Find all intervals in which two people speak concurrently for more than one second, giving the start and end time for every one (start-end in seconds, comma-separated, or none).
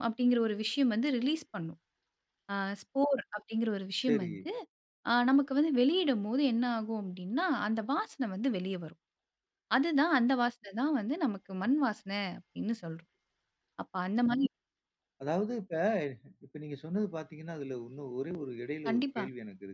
none